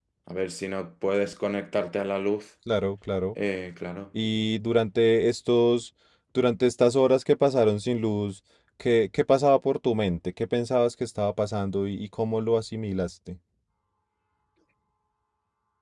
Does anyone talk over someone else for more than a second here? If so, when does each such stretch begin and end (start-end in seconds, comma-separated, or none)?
none